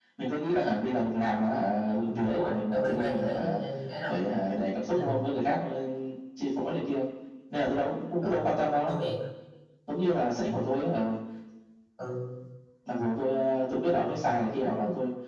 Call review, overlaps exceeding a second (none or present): present